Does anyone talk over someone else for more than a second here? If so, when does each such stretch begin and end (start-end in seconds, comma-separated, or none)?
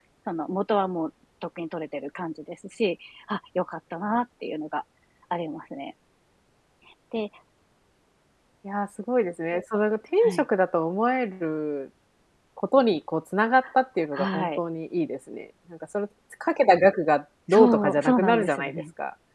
17.5-18.8